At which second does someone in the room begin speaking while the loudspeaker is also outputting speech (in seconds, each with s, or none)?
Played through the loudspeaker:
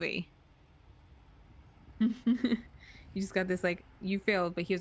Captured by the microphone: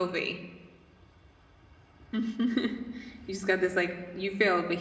none